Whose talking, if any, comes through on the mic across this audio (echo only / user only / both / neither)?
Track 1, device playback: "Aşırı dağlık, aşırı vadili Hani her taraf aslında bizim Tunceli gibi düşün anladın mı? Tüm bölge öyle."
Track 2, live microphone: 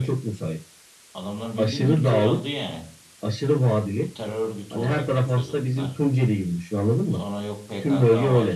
both